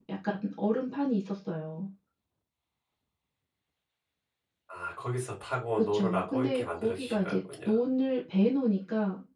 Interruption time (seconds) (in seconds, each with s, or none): 5.8 s